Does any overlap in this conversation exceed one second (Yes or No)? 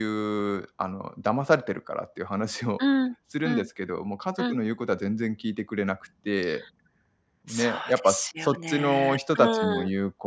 Yes